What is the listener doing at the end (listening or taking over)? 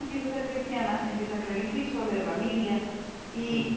taking over